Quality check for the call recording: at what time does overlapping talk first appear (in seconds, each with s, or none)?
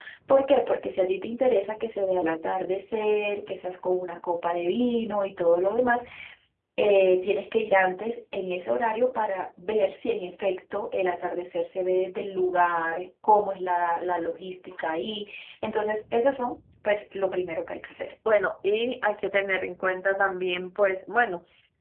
none